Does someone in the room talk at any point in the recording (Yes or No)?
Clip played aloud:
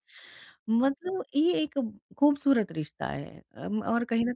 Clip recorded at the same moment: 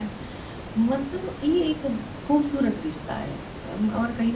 No